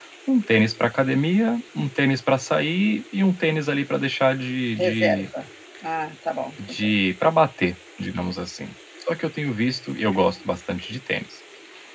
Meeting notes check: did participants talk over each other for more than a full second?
No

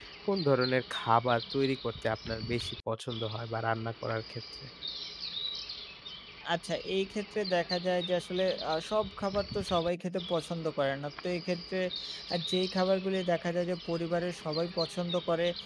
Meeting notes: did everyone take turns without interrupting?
Yes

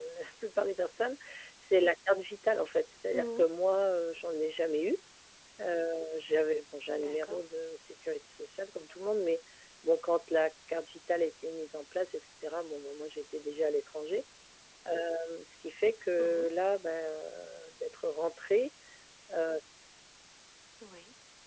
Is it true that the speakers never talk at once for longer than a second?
Yes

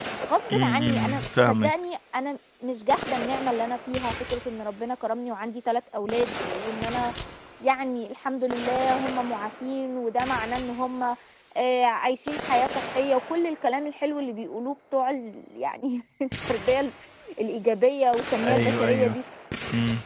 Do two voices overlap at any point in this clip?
Yes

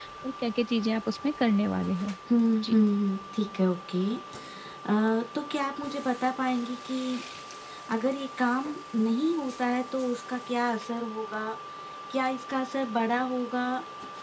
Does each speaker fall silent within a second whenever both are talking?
Yes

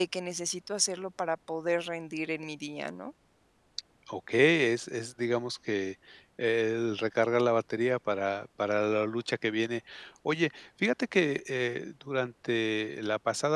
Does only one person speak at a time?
Yes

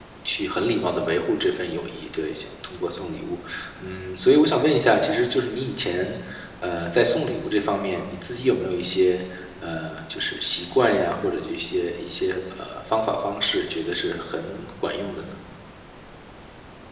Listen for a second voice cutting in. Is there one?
No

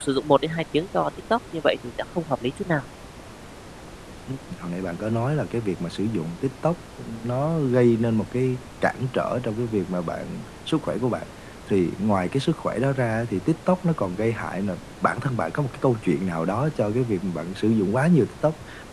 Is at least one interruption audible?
No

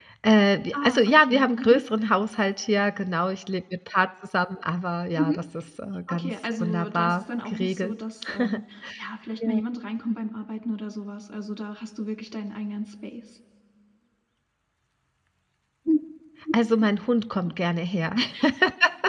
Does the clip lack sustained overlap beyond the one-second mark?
No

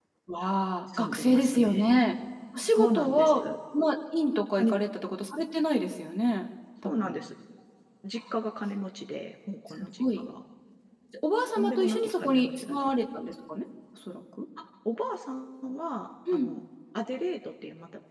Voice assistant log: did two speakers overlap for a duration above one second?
Yes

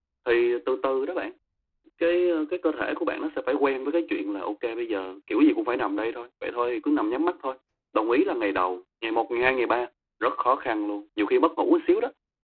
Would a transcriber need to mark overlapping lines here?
No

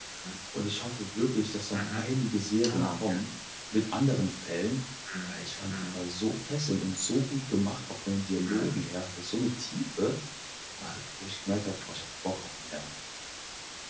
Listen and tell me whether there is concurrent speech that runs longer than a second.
No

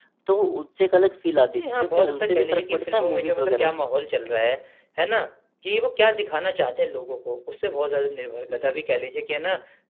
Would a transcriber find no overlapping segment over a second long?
No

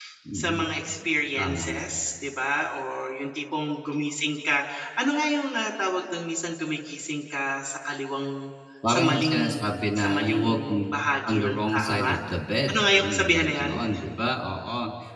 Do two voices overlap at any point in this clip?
Yes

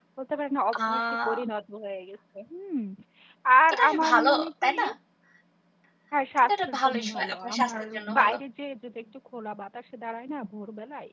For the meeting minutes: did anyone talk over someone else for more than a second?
Yes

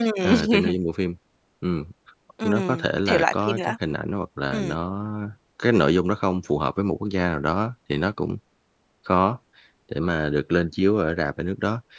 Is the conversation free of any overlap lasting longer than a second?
No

